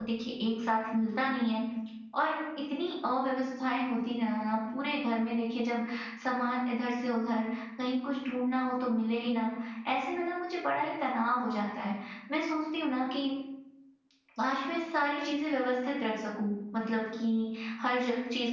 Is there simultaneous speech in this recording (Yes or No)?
No